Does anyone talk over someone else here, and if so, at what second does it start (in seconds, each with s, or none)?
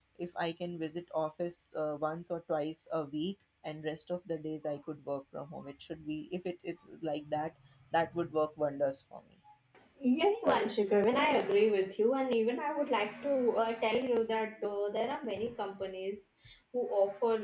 none